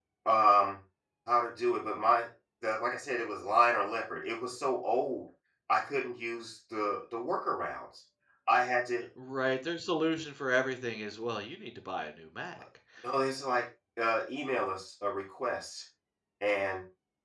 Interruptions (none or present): none